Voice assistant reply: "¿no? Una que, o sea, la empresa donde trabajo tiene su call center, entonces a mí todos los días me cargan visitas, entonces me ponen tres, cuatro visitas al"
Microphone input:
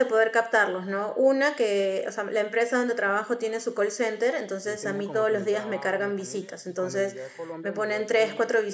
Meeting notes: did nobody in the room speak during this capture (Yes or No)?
No